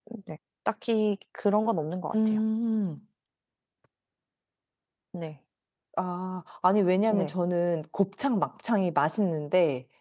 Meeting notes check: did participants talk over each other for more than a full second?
No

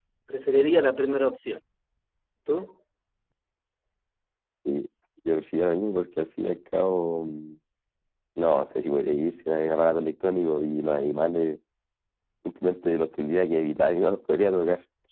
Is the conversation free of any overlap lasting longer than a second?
Yes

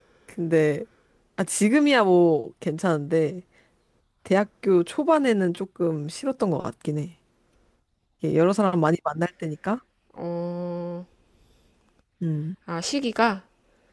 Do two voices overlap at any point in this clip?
No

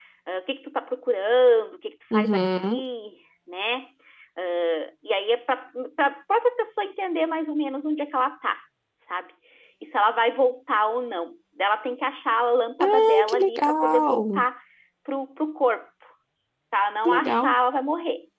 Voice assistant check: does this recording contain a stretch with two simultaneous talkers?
Yes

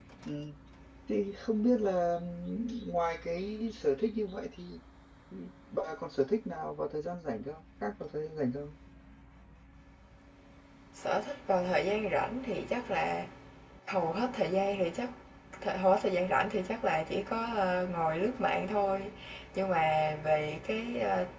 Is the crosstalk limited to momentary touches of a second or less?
Yes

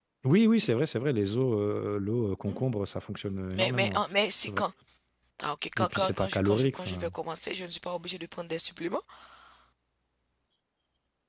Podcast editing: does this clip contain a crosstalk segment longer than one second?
Yes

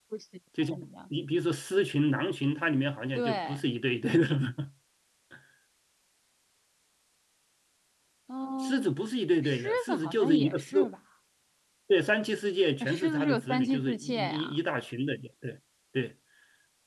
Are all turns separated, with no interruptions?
No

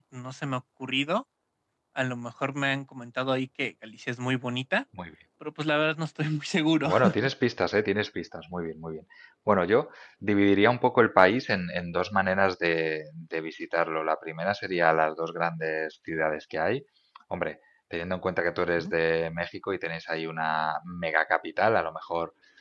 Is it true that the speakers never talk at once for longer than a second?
Yes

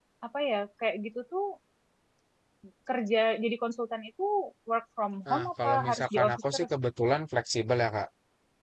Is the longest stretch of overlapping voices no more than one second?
No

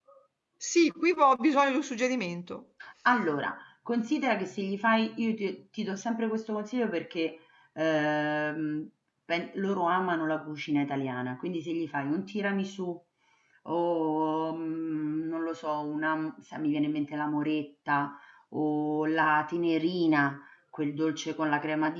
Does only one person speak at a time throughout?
Yes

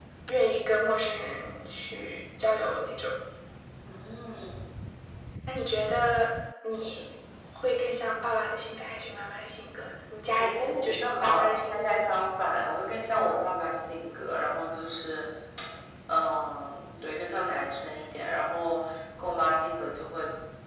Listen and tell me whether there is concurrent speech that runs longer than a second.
Yes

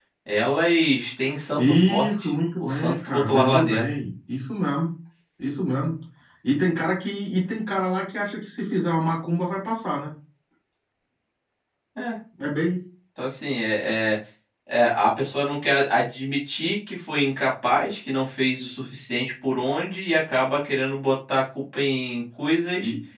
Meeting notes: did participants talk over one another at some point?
Yes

